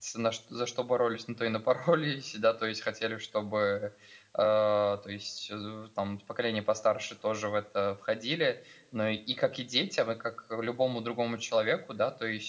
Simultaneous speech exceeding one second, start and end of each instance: none

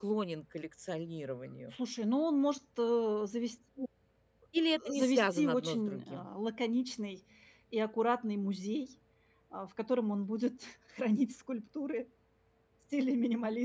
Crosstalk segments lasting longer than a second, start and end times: 5.0-6.3

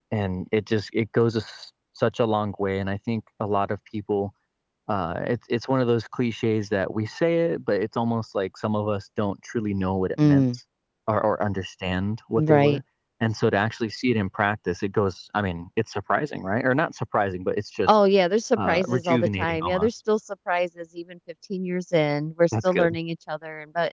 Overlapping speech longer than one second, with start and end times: 18.6-19.9

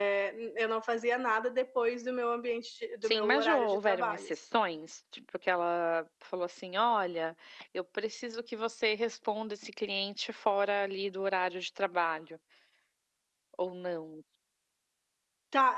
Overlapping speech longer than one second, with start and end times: 3.0-4.3

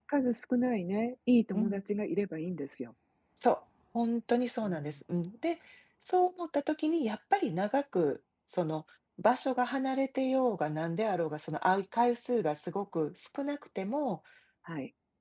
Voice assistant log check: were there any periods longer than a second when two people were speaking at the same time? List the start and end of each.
none

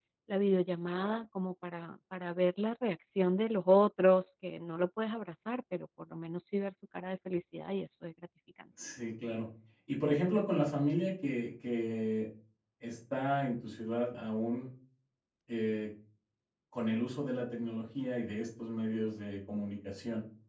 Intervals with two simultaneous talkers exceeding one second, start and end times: none

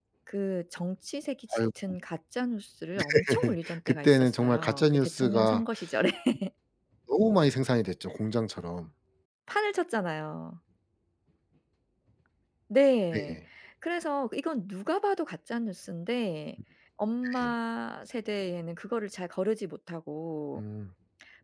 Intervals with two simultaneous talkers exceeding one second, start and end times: 3.0-5.6

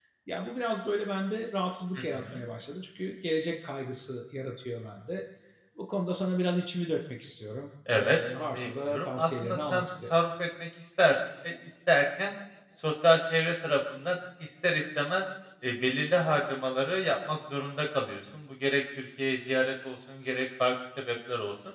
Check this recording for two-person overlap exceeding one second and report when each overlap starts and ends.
7.9-10.1

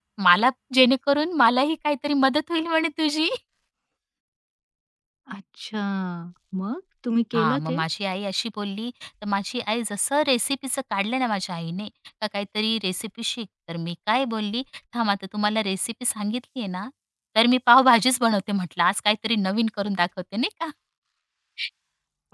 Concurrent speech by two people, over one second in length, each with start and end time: none

